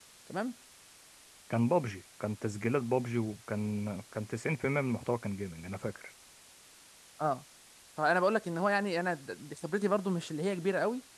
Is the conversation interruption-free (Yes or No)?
Yes